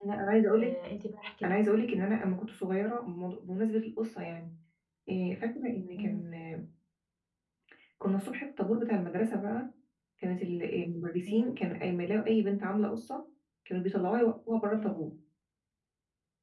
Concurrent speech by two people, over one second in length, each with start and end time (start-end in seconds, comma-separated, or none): none